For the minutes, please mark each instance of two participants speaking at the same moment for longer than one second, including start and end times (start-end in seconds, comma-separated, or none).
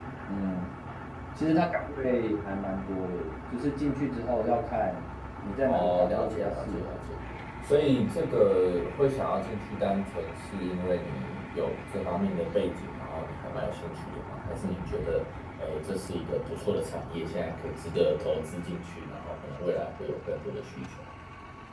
5.6-6.9